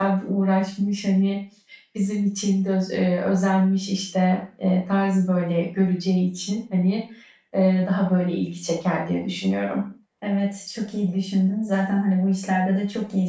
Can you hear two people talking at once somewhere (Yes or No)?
No